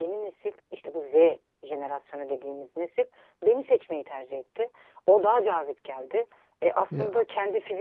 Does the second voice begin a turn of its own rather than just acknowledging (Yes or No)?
No